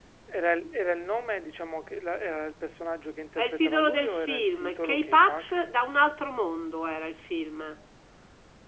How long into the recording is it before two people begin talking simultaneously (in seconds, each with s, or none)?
3.4 s